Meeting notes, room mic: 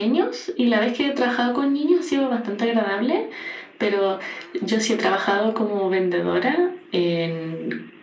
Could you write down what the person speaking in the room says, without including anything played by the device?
none

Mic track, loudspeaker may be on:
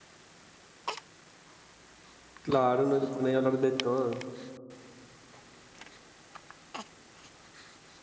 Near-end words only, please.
Claro, no le pone a hablar de todo.

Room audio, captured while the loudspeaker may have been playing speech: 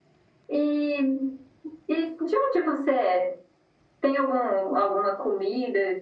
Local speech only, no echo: none

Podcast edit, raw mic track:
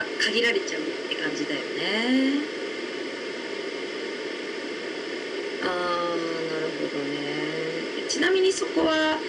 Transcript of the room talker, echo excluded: none

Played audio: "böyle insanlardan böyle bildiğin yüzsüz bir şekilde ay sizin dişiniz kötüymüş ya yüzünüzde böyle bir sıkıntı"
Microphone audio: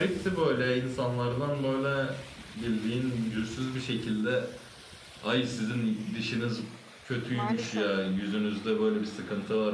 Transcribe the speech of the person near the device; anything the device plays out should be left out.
maalesef

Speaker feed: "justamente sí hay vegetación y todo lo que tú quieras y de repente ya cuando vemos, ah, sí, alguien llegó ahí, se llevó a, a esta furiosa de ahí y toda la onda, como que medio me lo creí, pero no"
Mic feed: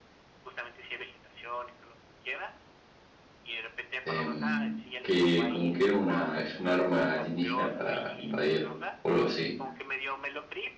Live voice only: em, que como que era una, es un arma alienígena para invadir o algo así.

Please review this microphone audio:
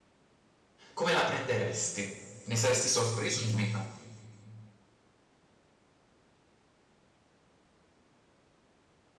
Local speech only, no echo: come la prenderesti? Ne saresti sorpreso o meno?

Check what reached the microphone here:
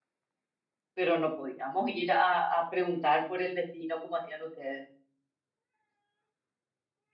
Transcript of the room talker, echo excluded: pero no podíamos ir a, a preguntar por el vecino como hacían ustedes.

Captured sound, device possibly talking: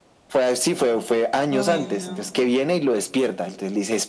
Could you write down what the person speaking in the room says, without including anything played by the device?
Uy, no.

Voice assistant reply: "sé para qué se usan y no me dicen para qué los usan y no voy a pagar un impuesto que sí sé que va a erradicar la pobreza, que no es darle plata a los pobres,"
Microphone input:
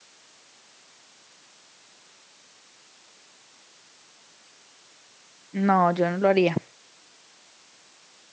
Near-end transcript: No, yo no lo haría,

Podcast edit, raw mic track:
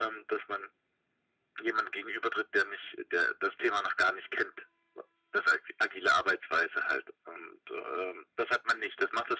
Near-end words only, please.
none

